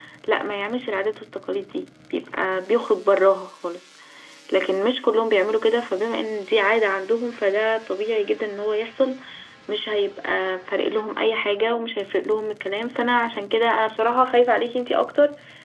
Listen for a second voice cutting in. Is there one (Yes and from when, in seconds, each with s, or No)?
No